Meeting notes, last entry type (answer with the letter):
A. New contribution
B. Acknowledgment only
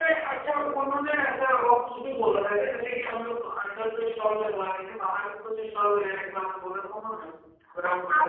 A